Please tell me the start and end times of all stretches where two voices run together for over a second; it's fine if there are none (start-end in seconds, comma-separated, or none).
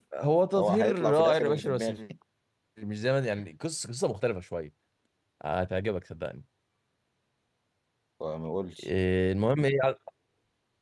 0.6-1.9